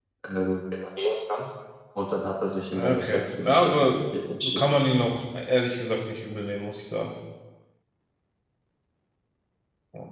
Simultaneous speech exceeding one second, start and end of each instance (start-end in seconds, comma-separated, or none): 2.7-4.0